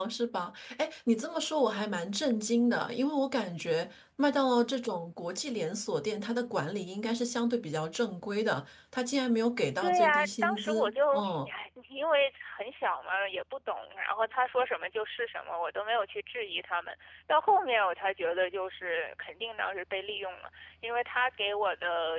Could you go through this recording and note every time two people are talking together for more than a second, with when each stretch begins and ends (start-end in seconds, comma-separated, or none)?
9.8-11.5